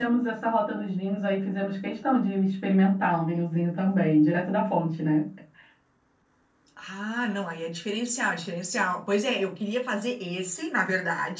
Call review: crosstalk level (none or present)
none